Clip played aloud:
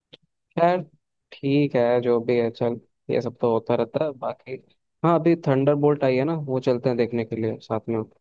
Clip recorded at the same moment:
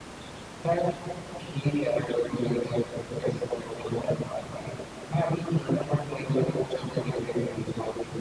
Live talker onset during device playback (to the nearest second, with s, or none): none